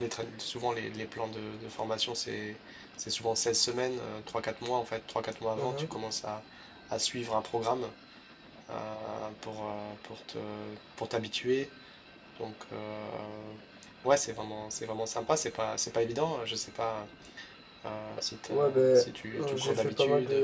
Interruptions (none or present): present